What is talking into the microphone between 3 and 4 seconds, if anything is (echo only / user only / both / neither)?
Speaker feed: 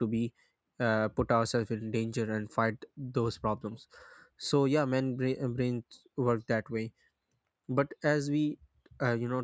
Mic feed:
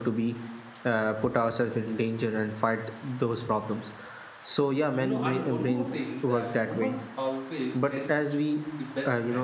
echo only